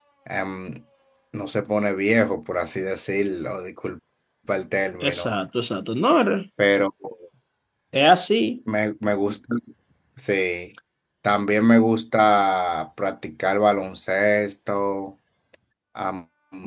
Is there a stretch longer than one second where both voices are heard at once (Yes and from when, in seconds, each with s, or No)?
No